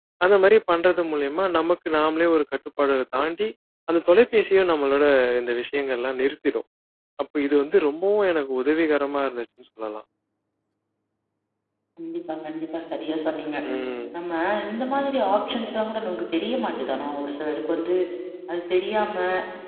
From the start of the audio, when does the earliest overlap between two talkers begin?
none

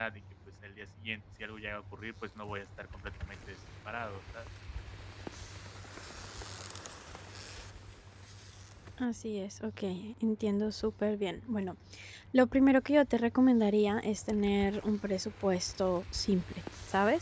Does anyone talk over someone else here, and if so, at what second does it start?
none

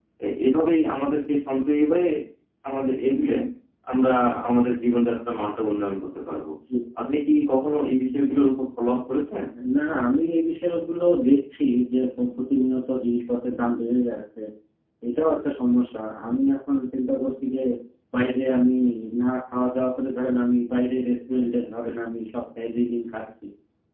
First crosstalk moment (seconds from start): none

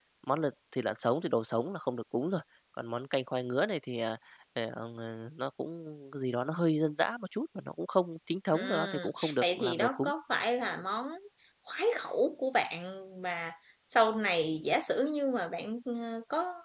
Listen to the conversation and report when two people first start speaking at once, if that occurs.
9 s

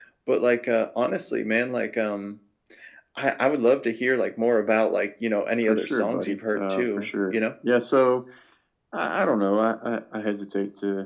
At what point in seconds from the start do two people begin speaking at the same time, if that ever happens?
6 s

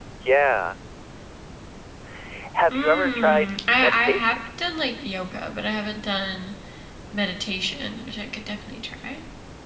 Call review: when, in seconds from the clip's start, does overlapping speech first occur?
3 s

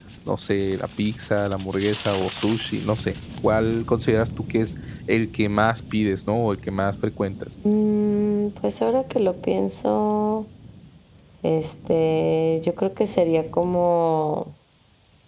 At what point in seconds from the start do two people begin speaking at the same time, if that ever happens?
none

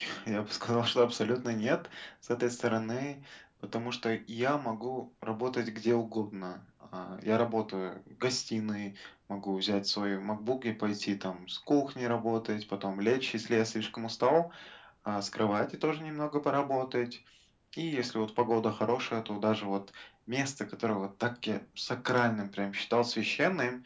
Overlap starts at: none

